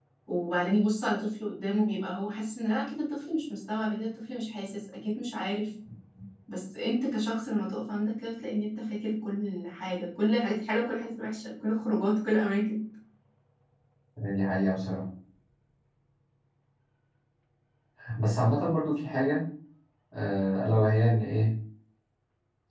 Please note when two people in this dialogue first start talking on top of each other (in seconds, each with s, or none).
none